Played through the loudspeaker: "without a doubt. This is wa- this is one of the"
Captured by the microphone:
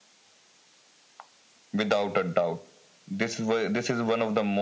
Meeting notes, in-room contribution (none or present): none